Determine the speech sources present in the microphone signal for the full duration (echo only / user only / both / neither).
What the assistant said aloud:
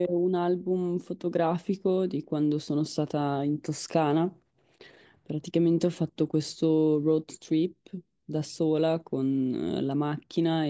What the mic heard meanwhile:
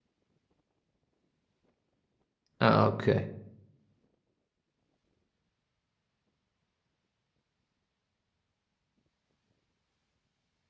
user only